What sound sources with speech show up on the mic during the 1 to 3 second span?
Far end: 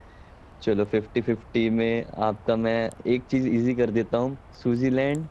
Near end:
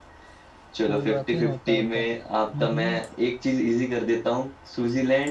both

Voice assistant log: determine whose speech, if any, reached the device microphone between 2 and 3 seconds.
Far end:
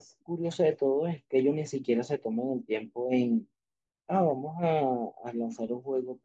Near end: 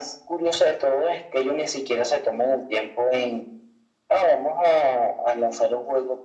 echo only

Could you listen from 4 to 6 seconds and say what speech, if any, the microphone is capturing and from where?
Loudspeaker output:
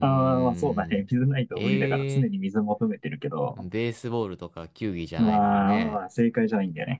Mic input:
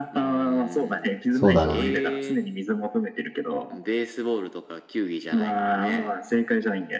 echo only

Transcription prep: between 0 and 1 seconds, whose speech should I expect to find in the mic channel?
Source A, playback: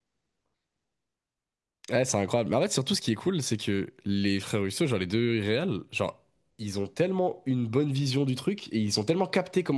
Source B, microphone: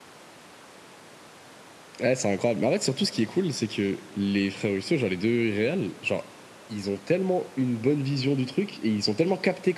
neither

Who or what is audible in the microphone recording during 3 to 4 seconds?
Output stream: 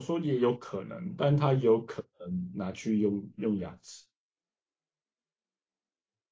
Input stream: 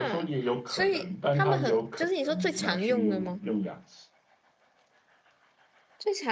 both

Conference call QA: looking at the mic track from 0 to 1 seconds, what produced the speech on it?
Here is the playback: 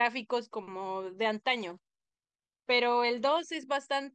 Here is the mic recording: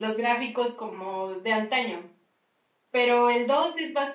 echo only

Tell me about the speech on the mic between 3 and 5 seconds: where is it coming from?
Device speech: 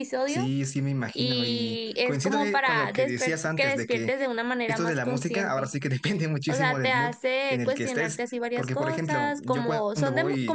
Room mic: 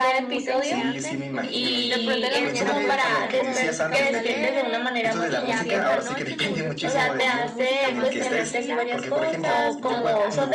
both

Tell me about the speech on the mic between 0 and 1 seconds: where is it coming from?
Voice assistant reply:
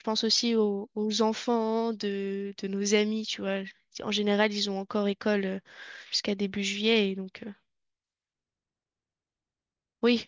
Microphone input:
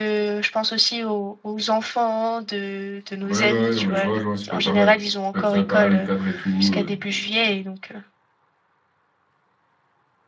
echo only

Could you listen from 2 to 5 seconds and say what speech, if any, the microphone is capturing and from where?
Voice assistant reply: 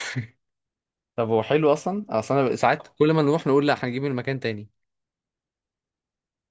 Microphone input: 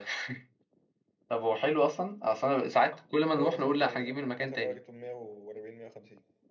both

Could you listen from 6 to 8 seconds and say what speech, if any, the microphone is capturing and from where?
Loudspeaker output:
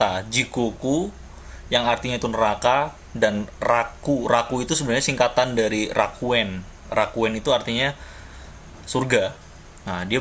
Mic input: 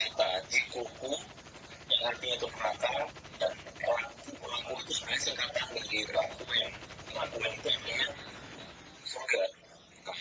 echo only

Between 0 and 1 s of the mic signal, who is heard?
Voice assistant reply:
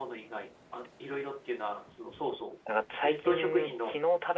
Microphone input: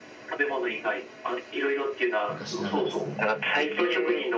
echo only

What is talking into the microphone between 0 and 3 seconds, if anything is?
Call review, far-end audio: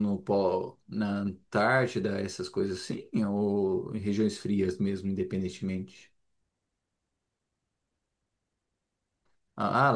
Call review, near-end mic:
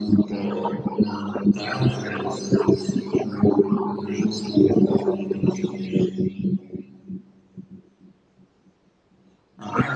echo only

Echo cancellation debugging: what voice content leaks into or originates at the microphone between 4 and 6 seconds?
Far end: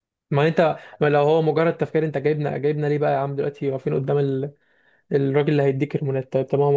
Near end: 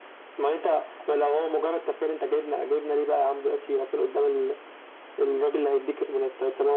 echo only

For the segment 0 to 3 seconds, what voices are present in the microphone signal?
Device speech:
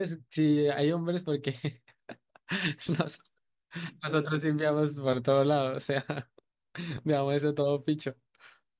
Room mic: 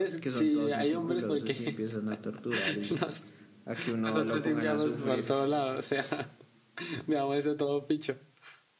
both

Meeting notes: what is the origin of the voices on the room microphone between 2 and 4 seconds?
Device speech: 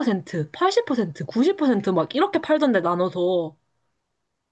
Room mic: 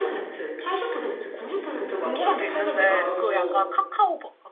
both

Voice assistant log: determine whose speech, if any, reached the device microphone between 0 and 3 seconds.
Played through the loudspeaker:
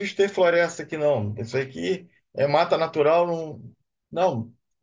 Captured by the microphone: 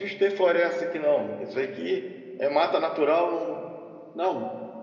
echo only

